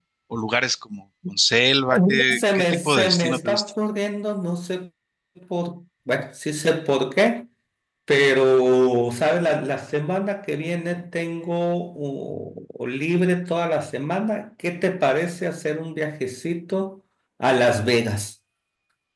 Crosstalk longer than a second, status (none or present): present